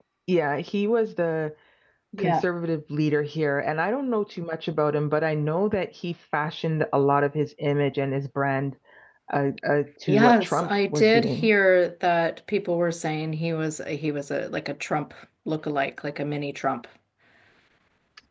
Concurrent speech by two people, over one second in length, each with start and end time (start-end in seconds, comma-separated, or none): 10.1-11.5